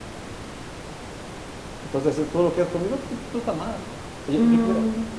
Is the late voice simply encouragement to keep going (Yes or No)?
Yes